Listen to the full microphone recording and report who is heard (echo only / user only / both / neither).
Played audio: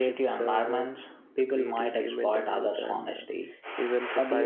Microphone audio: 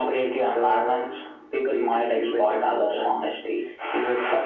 echo only